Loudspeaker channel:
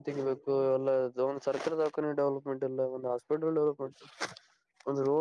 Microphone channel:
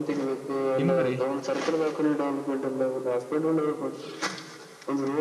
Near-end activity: present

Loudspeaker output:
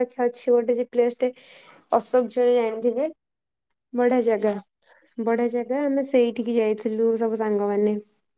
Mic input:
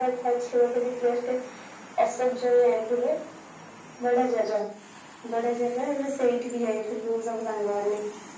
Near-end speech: none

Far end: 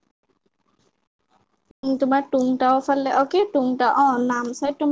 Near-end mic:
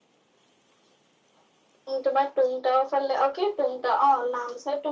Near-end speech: none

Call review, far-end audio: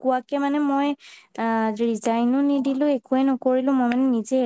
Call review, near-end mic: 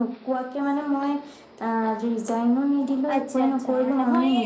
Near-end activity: present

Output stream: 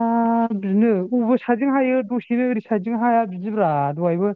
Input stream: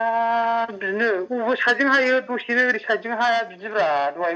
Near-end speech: none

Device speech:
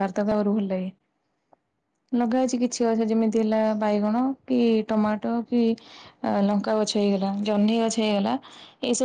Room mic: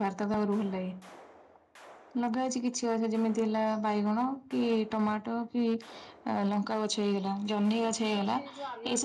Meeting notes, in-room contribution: present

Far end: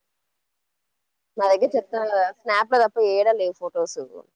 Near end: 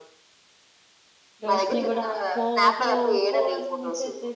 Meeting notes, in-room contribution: present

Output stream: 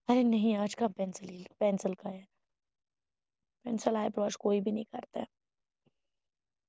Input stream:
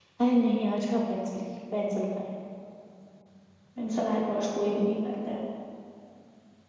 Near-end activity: none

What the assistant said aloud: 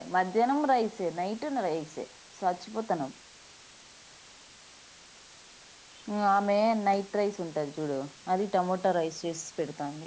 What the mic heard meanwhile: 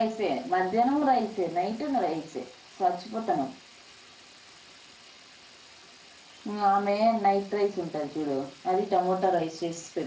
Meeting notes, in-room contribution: none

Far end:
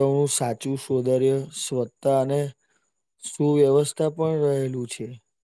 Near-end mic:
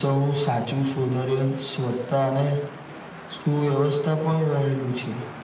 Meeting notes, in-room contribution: none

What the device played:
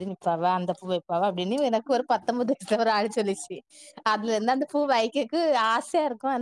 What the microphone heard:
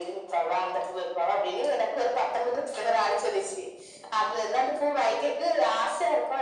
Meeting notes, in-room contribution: none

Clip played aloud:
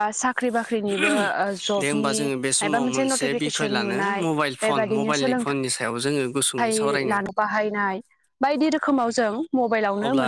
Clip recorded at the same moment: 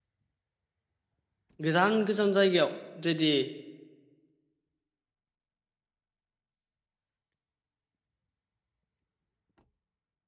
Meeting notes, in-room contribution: present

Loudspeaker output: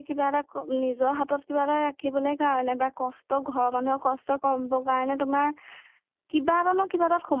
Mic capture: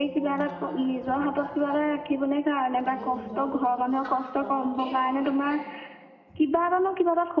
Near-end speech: present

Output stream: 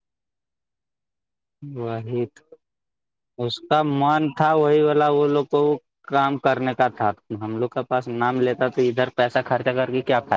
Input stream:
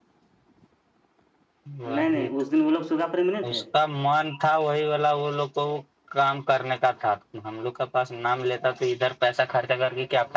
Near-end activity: present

